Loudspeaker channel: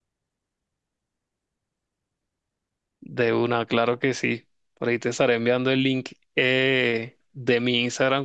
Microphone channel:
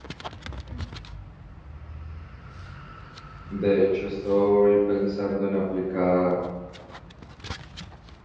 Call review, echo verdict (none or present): none